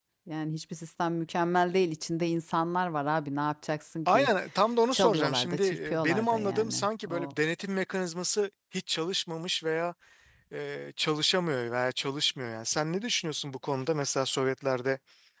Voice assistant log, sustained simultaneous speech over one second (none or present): present